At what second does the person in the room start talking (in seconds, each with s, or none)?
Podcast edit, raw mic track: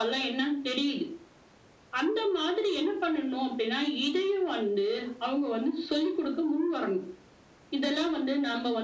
none